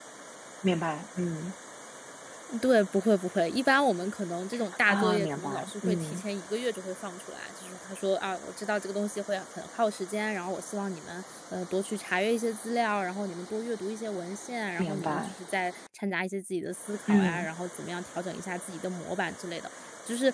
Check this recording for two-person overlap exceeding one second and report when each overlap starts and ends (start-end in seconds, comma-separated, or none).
4.9-6.2